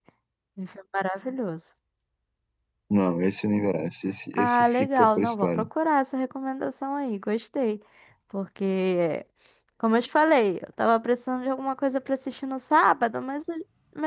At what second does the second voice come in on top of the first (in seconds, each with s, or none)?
4.3 s